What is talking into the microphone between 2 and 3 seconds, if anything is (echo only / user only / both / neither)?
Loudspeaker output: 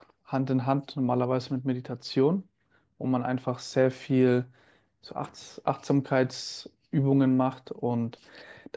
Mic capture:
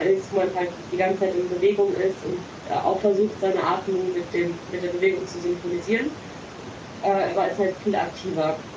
user only